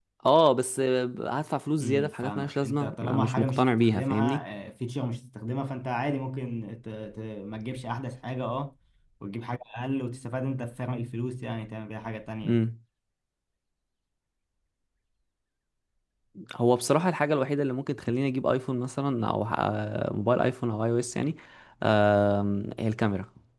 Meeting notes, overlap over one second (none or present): present